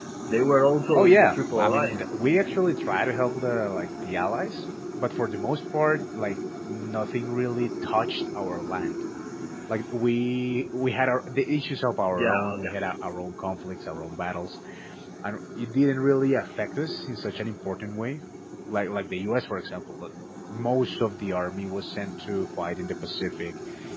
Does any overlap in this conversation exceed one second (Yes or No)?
Yes